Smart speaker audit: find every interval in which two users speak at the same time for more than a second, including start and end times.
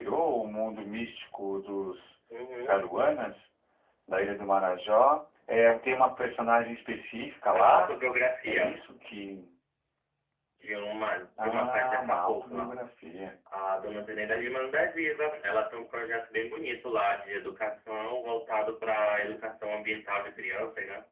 11.4-12.7

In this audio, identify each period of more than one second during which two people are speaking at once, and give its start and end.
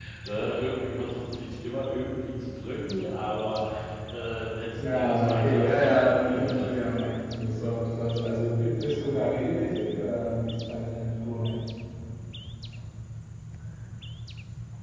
4.8-7.1

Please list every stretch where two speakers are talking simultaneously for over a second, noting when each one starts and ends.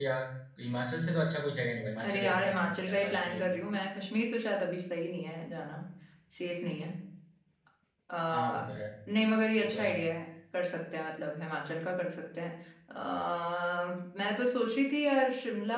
2.0-3.4

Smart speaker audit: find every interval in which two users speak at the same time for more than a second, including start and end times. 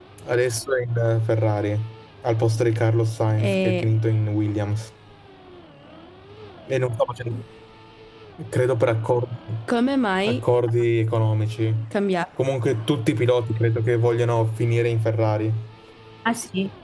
none

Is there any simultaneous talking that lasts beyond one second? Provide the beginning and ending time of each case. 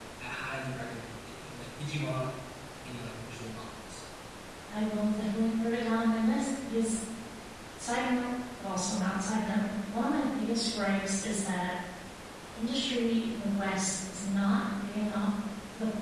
none

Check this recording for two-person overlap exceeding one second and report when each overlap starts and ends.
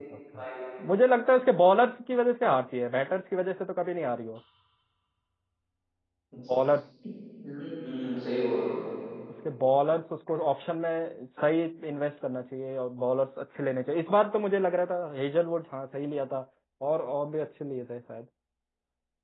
none

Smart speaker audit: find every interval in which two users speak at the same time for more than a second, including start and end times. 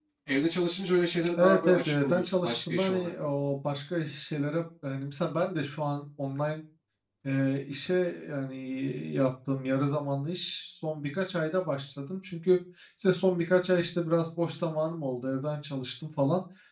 1.4-3.1

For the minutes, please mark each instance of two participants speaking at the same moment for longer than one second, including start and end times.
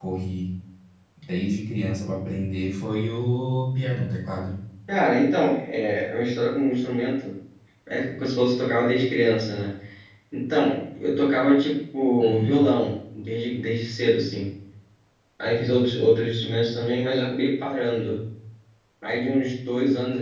none

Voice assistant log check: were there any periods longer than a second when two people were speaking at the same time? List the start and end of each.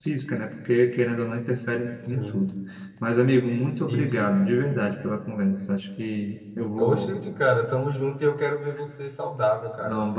none

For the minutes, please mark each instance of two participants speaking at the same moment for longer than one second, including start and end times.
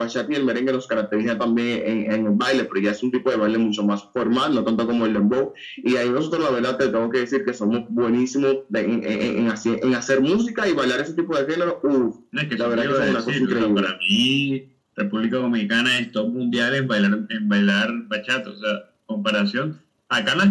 12.6-13.9

